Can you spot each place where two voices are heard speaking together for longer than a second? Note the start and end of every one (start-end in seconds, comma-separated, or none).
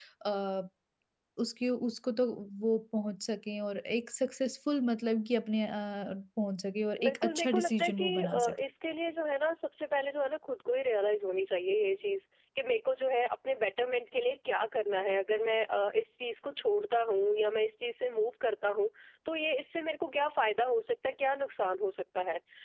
7.0-8.5